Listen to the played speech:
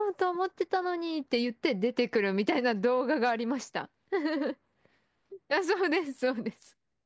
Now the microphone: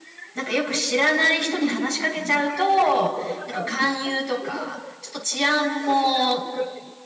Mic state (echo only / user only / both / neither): both